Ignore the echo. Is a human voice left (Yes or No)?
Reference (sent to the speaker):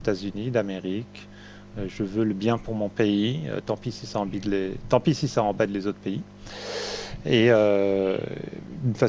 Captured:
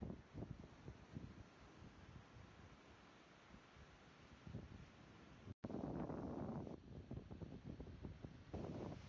No